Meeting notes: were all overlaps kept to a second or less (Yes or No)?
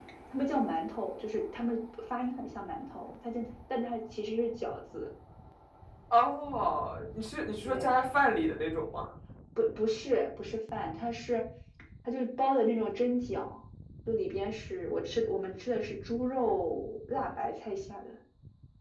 Yes